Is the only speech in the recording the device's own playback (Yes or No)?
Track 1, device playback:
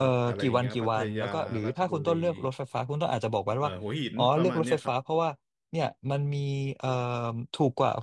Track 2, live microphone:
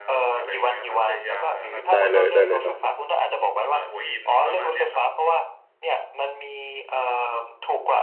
No